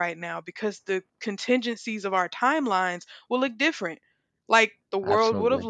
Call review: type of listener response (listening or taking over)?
listening